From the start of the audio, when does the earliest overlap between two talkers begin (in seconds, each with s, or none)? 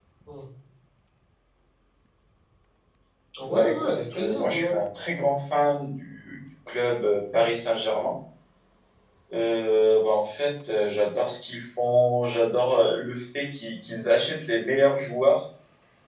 3.5 s